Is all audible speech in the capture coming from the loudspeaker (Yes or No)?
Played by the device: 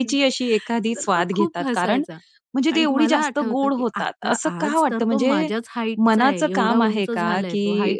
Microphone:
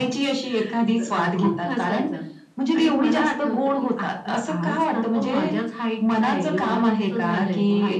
Yes